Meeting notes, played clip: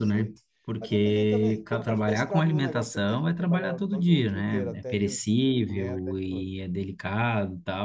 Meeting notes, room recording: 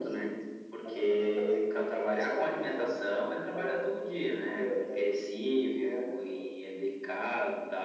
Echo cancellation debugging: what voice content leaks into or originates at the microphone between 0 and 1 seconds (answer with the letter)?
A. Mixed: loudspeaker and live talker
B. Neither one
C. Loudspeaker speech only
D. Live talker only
C